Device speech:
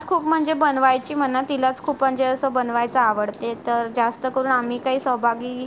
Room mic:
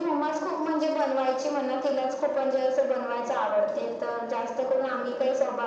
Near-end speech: none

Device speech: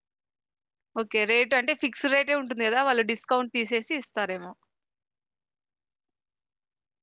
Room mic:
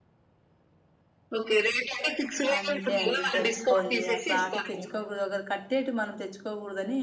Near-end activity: present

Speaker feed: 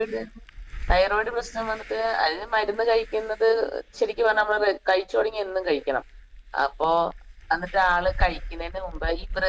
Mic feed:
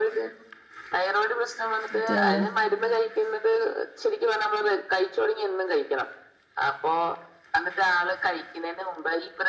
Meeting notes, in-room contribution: present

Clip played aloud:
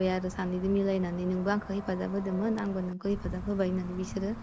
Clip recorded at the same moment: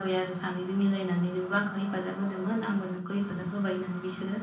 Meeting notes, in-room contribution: none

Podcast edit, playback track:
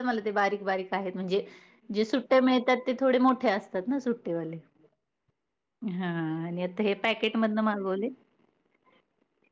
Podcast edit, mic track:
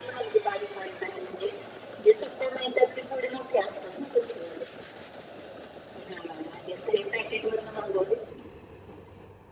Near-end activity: none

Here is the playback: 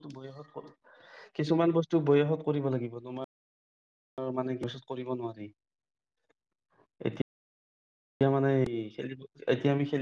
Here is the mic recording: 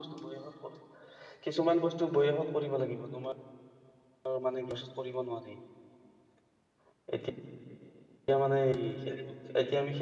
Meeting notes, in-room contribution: none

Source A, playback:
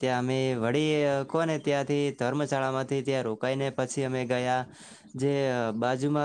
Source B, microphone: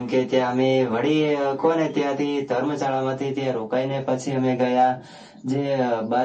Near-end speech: none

